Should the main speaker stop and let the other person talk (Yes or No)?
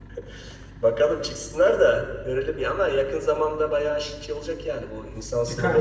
Yes